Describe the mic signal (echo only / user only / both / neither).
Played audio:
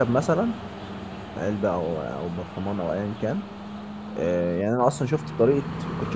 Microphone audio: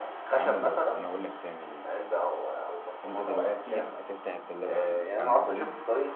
both